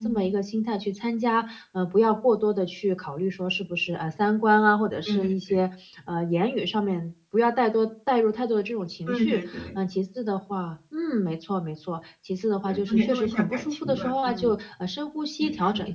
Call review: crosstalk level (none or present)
present